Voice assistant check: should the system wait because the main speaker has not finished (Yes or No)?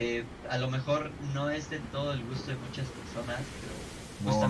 No